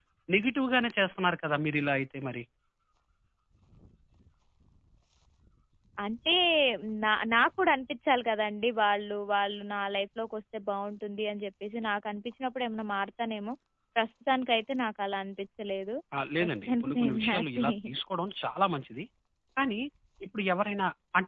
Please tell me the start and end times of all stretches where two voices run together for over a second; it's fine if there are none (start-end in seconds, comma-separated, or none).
16.4-17.7